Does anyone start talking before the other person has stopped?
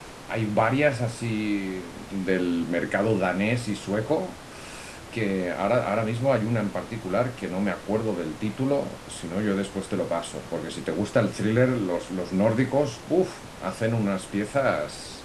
No

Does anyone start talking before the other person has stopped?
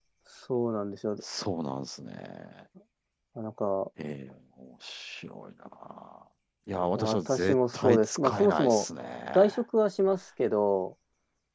Yes, from 7.0 s

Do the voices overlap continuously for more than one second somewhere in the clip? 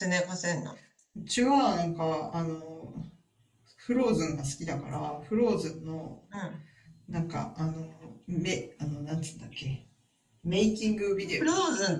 No

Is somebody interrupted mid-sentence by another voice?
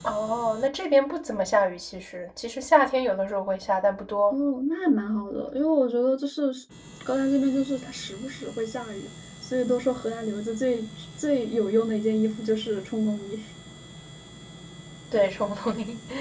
No

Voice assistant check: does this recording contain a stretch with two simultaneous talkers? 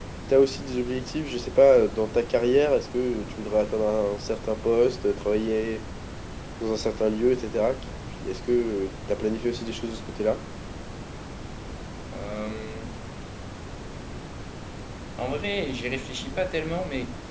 No

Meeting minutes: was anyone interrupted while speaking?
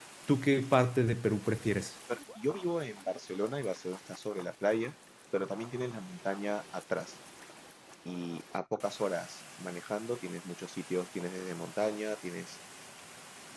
No

